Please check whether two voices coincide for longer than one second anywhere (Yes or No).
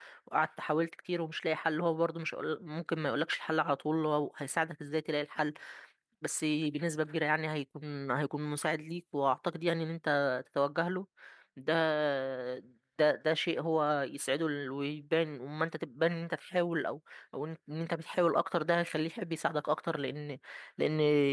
No